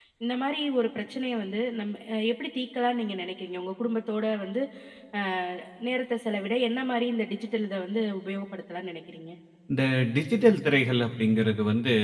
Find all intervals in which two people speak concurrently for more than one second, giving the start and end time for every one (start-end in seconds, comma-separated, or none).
none